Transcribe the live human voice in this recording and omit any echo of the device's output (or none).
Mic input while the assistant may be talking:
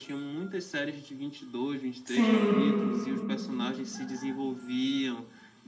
Sim.